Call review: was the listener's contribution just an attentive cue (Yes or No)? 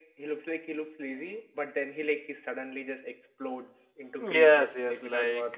No